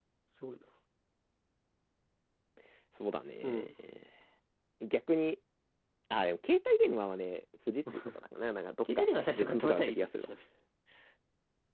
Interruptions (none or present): present